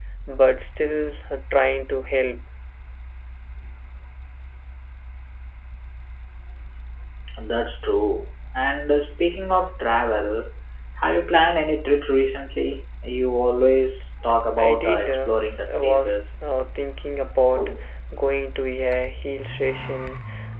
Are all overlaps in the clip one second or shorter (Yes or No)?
No